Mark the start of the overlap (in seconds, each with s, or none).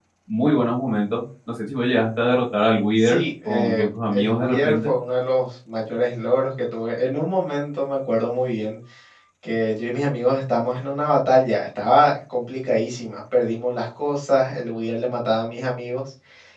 3.0 s